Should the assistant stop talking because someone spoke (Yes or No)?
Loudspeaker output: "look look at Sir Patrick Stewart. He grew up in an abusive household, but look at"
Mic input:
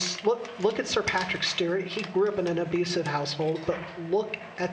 No